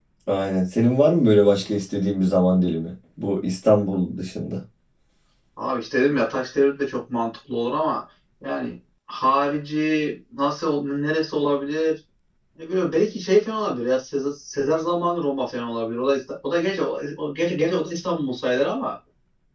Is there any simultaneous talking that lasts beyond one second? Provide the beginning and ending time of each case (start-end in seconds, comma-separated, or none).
none